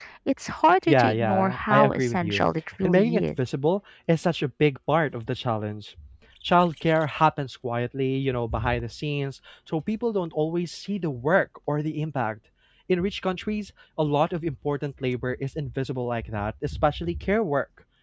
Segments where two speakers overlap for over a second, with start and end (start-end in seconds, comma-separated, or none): 0.9-2.4